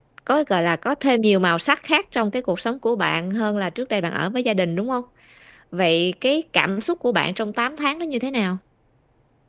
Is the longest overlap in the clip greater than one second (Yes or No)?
No